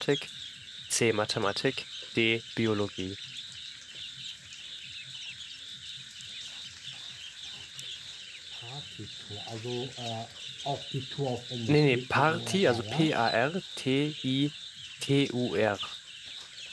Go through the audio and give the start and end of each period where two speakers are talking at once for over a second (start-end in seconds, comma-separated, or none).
11.7-13.1